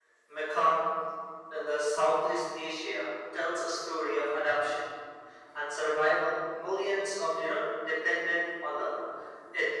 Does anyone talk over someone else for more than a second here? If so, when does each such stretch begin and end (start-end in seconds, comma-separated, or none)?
none